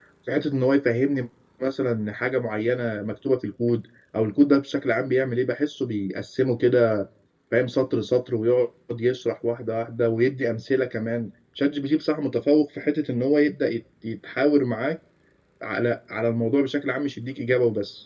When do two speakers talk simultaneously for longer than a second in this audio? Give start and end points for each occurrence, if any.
none

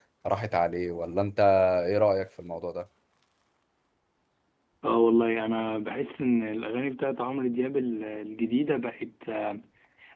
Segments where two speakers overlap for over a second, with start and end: none

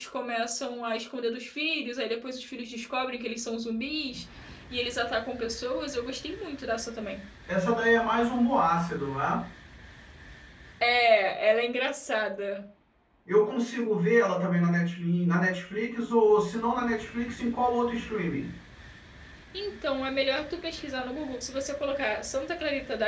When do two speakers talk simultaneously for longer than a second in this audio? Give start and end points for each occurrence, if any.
none

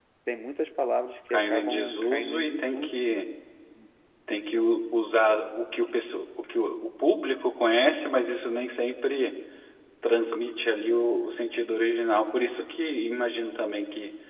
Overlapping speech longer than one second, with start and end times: 1.3-3.0

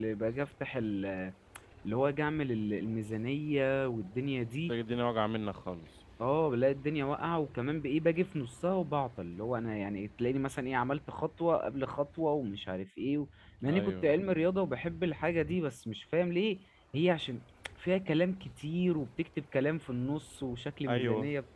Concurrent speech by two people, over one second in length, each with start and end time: none

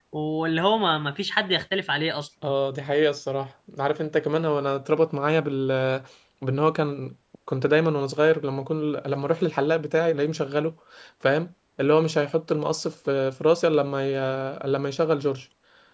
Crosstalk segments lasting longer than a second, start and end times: none

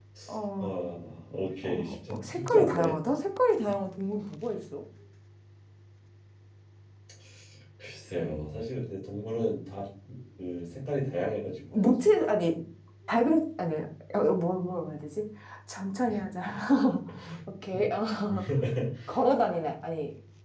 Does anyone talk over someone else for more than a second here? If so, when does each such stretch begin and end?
1.6-2.9

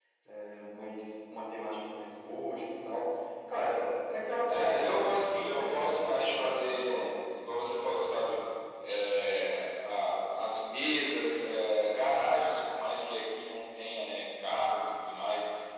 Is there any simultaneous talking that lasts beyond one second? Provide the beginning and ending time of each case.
4.5-7.1

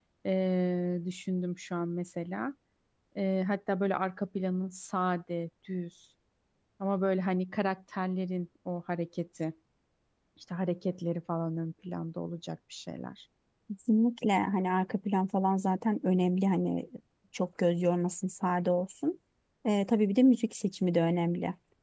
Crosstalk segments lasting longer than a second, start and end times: none

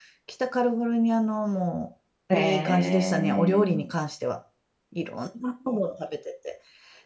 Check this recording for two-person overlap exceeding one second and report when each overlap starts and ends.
2.3-3.8

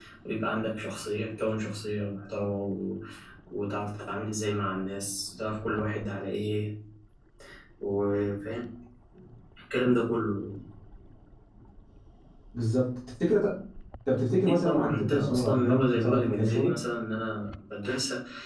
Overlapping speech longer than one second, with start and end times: 14.3-16.8

